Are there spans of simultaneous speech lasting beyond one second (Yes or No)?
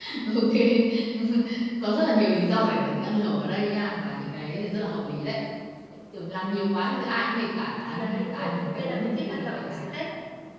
Yes